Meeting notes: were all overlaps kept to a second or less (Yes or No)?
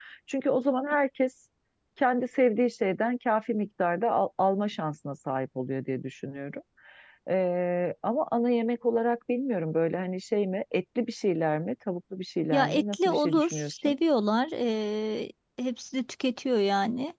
No